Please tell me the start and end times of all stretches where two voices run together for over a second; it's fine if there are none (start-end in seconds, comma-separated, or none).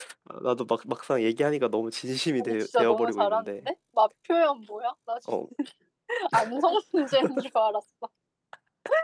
2.4-3.7